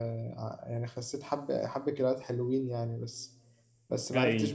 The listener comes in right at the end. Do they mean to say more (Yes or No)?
No